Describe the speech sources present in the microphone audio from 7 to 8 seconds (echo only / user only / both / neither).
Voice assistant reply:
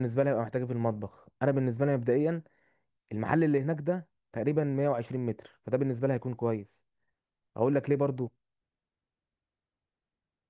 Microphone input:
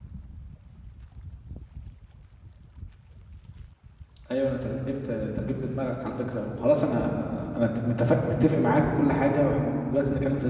user only